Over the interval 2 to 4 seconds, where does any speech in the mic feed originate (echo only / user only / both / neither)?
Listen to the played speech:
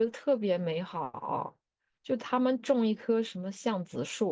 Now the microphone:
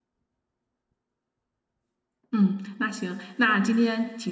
user only